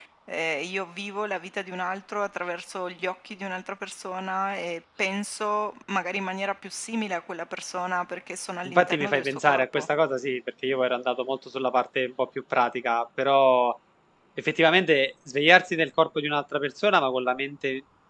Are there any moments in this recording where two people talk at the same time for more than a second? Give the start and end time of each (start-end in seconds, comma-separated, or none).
8.6-9.9